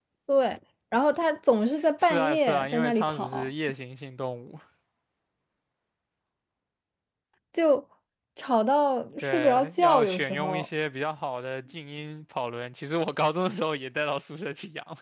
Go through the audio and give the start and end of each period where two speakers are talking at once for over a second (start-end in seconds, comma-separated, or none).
2.0-3.5, 9.2-10.7